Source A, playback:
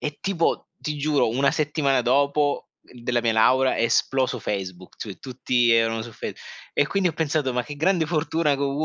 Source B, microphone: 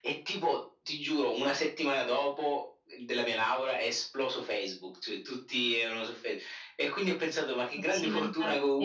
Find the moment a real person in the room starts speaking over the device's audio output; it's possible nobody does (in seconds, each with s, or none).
7.8 s